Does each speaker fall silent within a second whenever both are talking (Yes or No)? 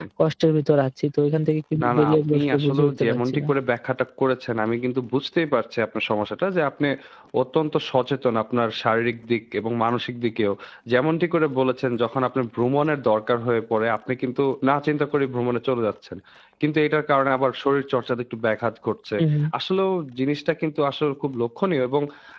No